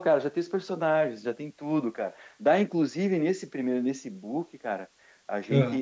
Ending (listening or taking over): listening